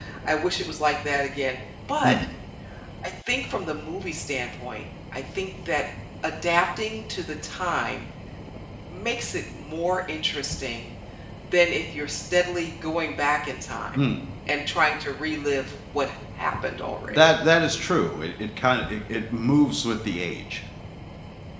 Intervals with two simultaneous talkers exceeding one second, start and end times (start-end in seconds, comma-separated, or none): none